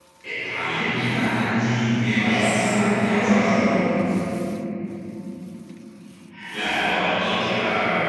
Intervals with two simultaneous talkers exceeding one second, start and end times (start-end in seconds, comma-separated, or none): 2.2-3.6